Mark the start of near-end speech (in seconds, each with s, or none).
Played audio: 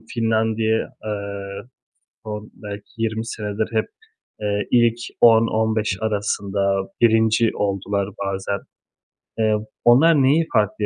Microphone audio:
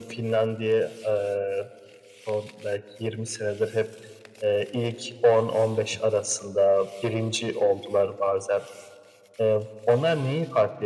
none